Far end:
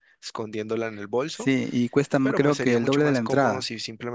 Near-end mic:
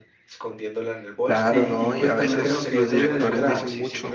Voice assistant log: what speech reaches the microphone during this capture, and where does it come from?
both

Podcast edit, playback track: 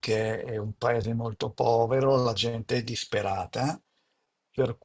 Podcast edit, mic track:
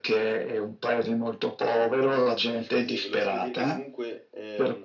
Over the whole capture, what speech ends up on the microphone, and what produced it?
both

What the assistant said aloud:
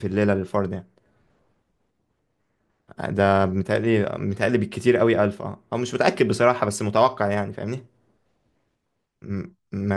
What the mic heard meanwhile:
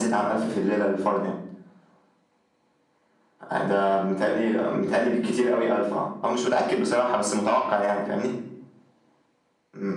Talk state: echo only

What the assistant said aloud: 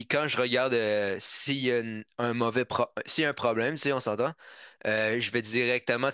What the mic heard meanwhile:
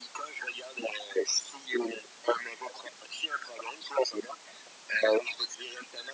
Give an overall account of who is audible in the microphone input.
echo only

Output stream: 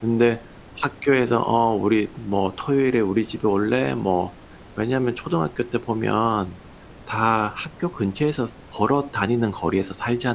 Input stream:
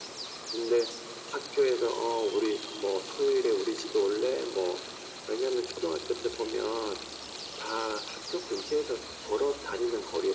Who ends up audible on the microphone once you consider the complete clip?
echo only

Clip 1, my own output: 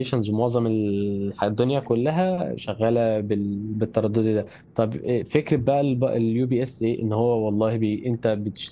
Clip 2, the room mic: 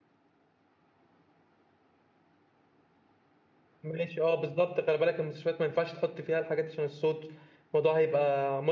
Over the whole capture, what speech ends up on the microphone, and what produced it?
user only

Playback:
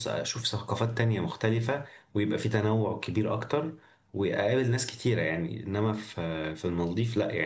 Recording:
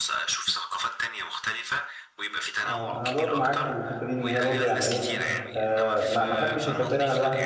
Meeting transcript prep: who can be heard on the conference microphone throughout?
both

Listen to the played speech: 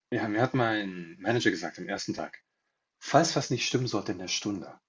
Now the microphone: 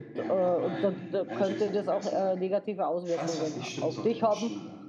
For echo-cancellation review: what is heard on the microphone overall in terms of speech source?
both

